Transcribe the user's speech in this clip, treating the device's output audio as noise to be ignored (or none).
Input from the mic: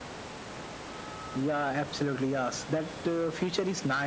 none